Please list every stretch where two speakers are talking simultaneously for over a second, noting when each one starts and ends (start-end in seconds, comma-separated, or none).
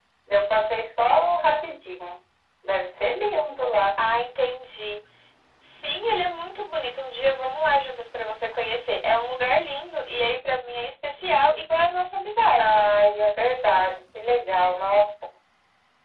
none